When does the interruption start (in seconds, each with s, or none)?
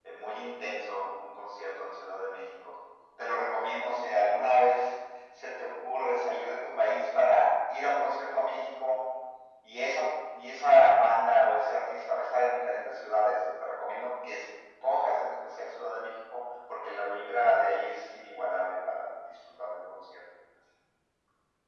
none